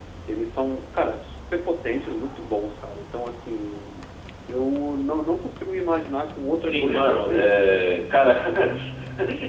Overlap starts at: 7 s

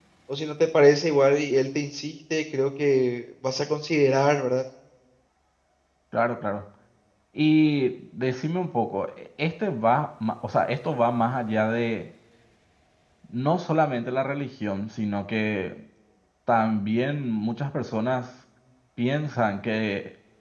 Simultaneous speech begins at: none

